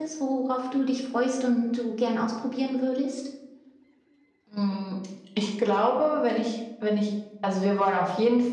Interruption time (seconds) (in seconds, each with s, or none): none